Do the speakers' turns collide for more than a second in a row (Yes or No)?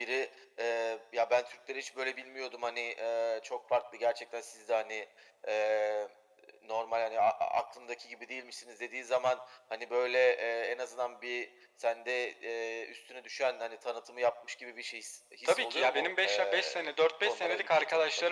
Yes